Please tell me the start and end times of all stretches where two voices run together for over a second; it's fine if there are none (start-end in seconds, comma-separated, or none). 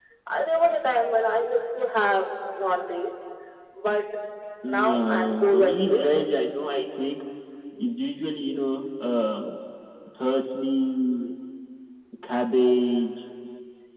4.6-6.3